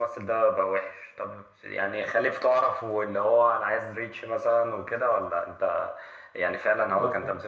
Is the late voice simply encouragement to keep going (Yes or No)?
Yes